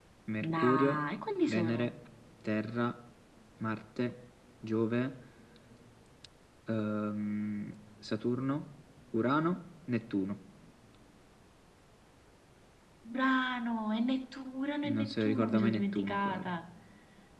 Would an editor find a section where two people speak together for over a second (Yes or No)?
Yes